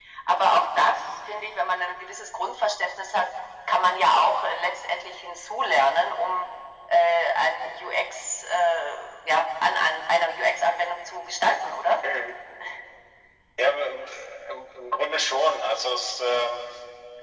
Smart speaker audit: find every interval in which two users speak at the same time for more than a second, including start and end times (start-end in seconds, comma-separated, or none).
none